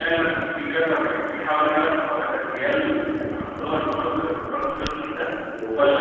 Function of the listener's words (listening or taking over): taking over